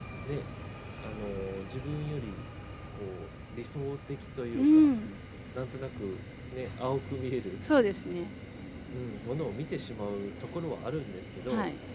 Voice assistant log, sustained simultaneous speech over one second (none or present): none